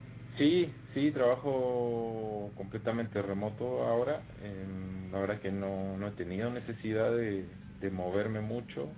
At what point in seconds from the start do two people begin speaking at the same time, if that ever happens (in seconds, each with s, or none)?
none